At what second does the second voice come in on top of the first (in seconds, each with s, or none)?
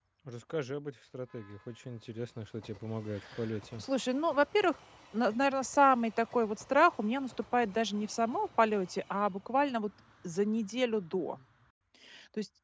none